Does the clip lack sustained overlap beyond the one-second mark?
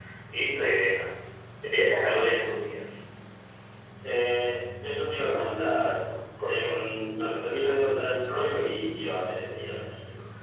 Yes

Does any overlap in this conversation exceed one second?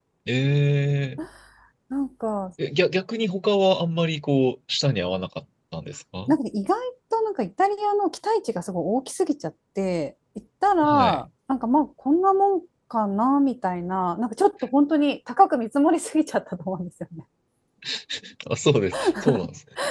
No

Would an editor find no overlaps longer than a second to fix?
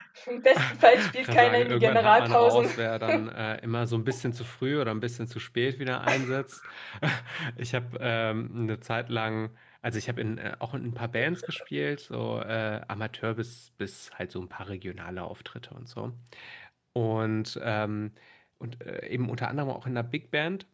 No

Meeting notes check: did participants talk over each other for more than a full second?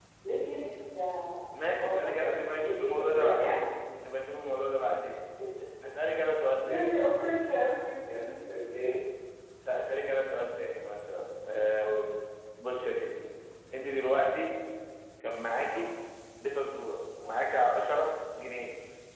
Yes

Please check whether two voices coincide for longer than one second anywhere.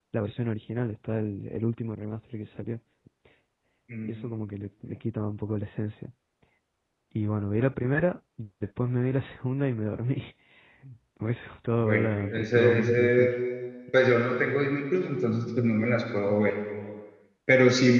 Yes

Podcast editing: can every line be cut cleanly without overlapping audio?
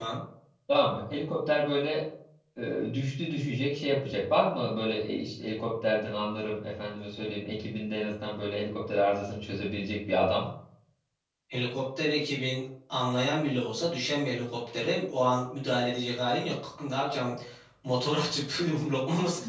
Yes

